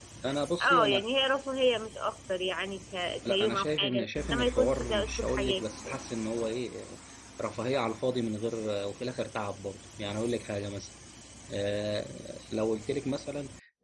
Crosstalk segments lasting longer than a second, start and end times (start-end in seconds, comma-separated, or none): 3.2-6.0